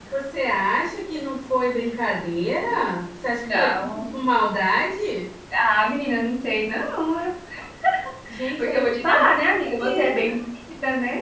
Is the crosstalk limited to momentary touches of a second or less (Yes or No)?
No